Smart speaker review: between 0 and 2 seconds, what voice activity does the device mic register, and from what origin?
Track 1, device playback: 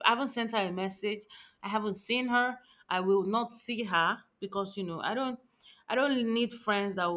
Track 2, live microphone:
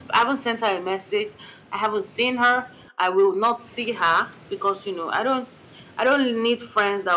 echo only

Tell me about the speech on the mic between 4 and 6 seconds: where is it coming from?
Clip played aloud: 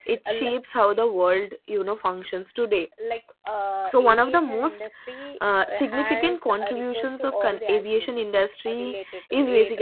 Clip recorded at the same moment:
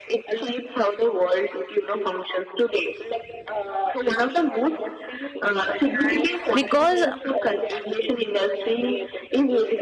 echo only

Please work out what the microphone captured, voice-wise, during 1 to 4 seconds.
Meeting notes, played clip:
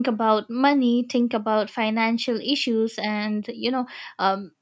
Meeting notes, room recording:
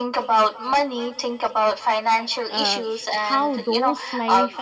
both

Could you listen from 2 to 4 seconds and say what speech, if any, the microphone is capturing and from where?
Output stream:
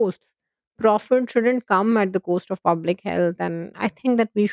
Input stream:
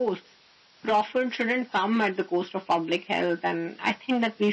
echo only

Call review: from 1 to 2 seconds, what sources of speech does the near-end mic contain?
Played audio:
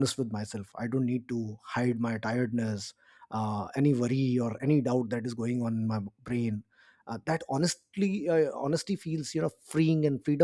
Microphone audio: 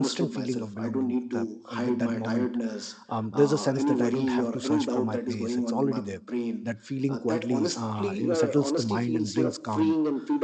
both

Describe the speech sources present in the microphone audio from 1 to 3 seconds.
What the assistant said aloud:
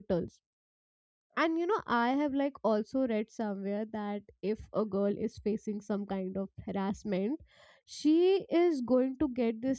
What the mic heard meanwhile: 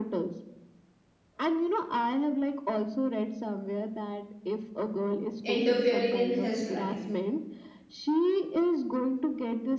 echo only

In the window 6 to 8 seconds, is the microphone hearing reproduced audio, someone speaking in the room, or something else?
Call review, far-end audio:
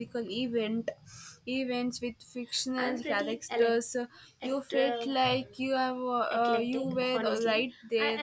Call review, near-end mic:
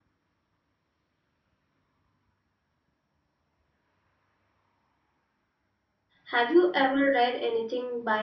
user only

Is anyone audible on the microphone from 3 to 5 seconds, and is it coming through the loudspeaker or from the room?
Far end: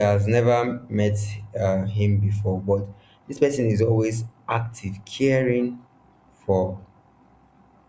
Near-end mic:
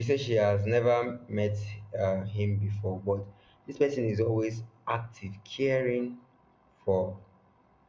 echo only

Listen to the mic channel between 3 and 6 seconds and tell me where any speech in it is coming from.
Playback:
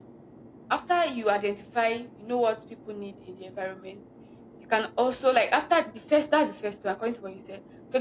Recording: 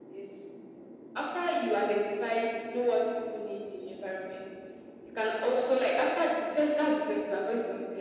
echo only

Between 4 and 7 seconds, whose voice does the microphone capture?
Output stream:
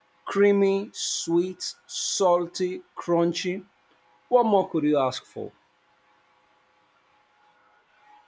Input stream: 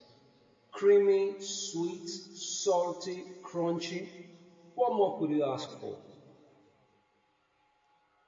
echo only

